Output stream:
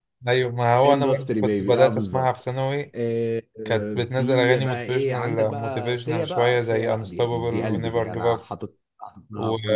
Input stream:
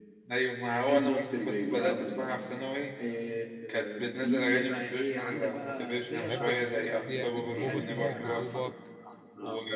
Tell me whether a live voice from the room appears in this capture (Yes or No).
Yes